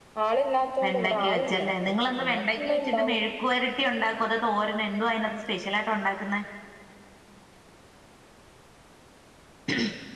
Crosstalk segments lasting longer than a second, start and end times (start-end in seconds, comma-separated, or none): 0.8-3.2